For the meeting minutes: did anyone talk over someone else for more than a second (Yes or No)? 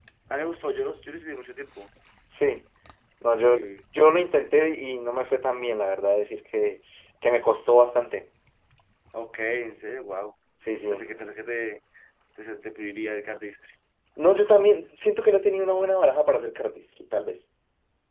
No